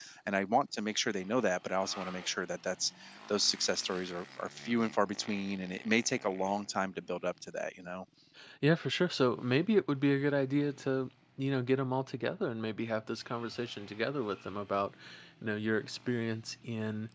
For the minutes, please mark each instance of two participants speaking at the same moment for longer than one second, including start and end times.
none

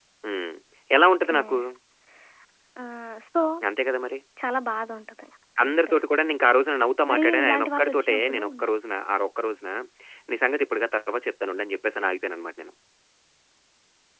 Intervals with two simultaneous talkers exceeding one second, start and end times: 7.1-8.4

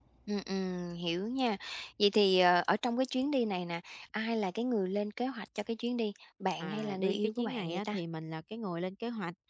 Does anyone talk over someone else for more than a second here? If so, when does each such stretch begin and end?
6.6-7.9

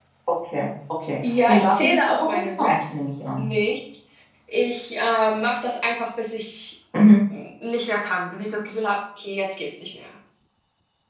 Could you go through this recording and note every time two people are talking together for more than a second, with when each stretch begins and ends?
1.5-2.9

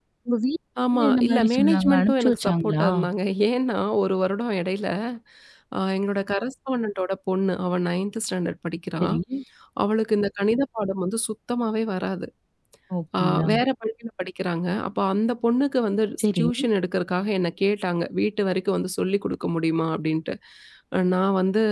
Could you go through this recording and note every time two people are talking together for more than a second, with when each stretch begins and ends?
0.9-2.9

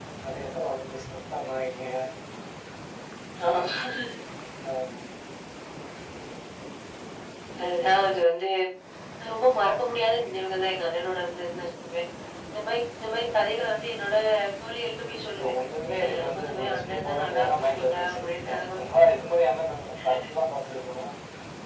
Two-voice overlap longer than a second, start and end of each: 16.0-18.2

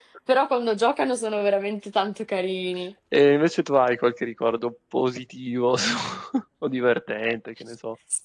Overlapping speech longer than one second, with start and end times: none

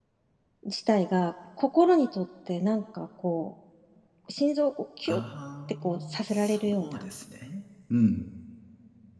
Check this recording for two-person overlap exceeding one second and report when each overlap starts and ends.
5.8-7.1

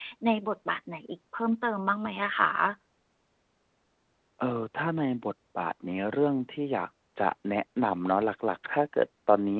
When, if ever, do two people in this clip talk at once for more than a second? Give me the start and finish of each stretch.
none

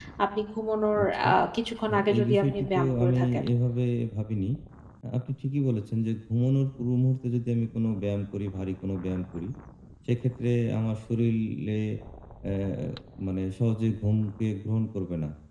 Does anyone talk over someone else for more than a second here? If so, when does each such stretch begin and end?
1.9-3.2

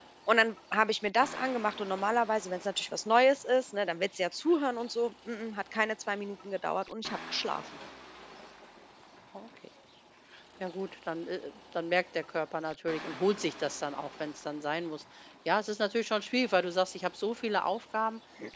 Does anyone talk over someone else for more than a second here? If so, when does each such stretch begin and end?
none

